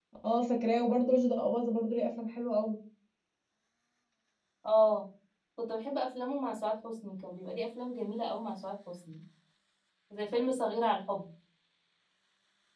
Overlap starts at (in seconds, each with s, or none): none